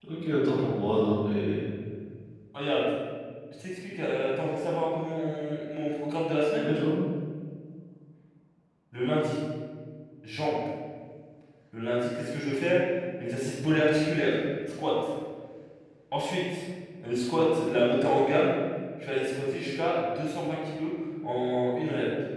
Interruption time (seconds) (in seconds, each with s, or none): none